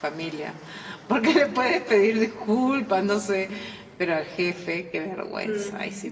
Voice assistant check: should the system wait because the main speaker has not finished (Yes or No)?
No